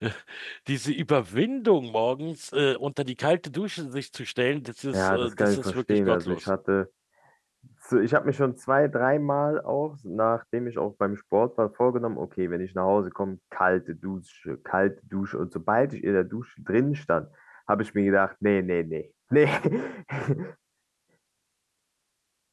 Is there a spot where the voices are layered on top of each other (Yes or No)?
Yes